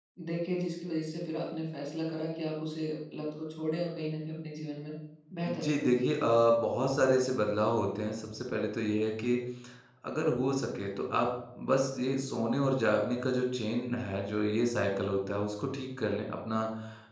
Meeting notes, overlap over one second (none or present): none